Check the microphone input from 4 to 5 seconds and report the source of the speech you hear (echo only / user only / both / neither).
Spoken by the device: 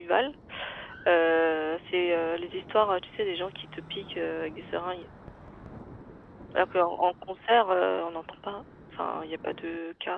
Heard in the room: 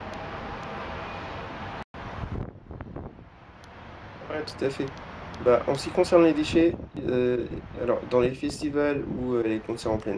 user only